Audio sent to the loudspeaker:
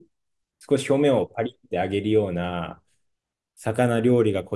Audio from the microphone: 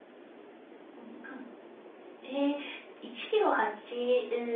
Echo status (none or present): none